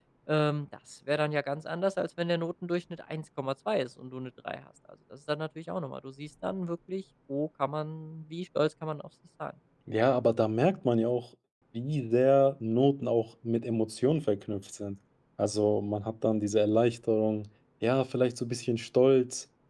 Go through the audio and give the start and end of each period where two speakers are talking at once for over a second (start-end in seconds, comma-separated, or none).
none